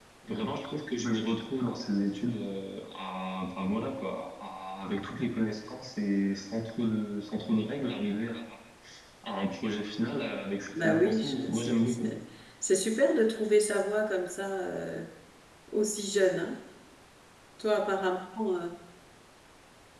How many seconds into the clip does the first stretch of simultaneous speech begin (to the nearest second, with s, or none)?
11 s